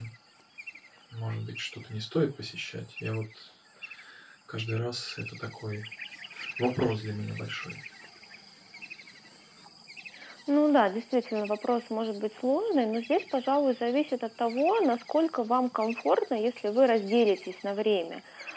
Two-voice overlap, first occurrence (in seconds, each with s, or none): none